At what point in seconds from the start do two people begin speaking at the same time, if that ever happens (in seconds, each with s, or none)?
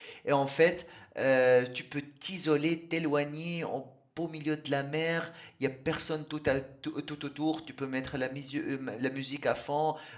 none